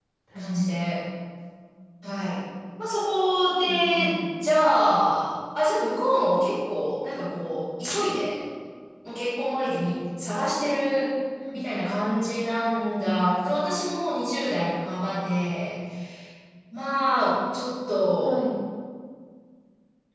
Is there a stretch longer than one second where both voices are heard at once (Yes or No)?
No